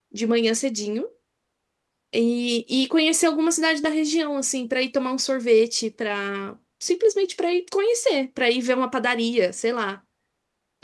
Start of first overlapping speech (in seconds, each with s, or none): none